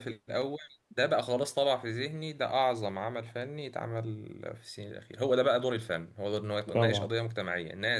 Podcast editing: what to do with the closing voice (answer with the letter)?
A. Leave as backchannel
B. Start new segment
A